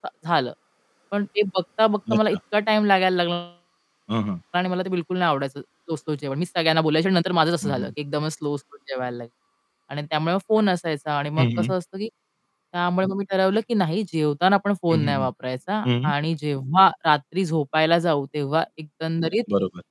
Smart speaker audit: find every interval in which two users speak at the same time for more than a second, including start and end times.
none

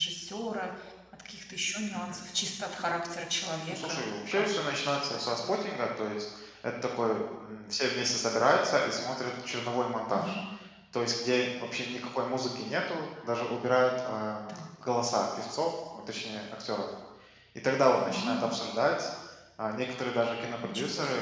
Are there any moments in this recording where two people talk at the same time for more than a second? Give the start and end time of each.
3.7-5.6

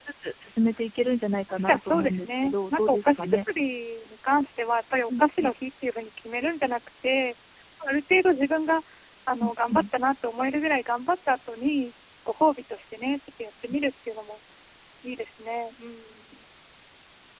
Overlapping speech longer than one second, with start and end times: 1.6-3.4

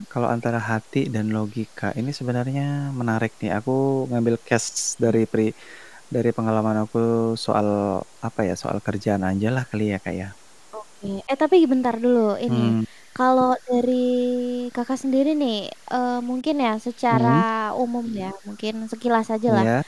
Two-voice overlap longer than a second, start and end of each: none

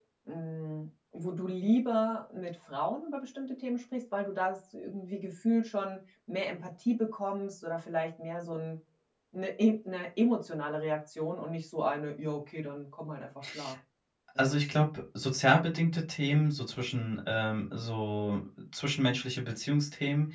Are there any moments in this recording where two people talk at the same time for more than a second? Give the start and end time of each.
none

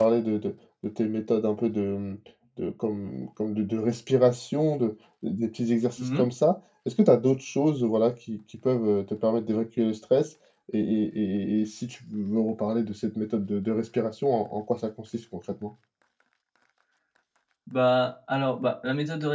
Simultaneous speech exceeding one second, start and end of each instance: none

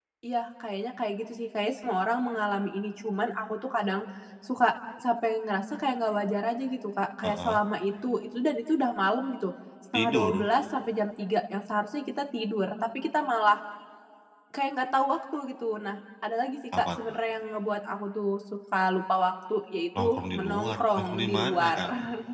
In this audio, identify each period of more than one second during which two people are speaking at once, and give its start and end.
20.0-21.8

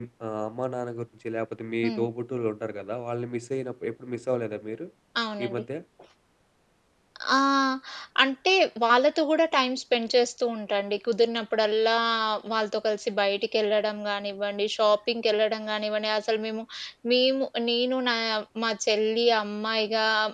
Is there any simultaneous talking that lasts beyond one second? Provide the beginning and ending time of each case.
none

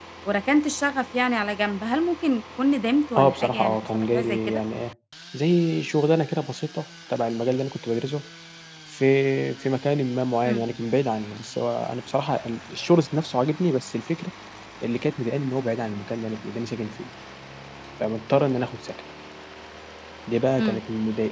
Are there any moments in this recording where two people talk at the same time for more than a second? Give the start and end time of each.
3.2-4.6

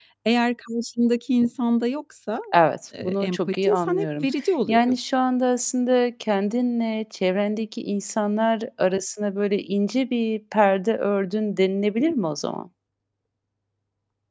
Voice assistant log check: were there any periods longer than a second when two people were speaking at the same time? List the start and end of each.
3.0-4.3

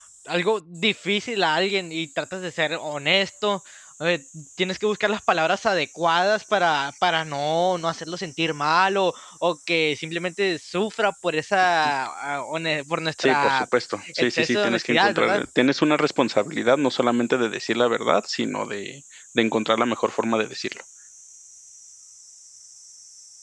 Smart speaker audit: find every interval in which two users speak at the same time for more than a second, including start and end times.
14.2-15.4

